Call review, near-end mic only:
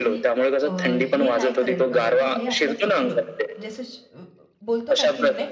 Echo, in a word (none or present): present